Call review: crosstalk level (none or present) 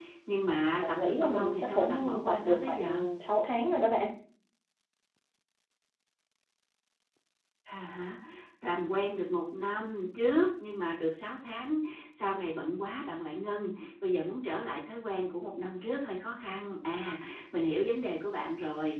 present